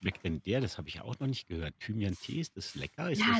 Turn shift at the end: Yes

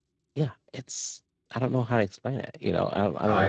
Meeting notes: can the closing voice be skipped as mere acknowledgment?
No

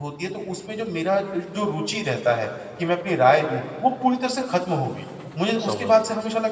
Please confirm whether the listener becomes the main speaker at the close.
No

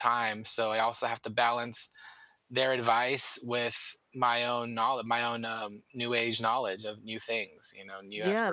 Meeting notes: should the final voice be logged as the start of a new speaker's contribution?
Yes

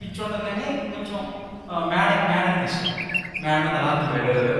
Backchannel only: No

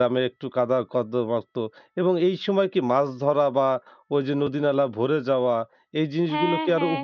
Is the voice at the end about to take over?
Yes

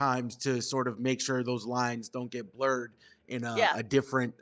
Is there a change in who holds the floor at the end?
No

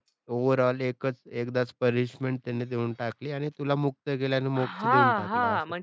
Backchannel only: No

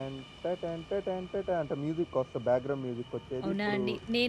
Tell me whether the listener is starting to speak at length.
Yes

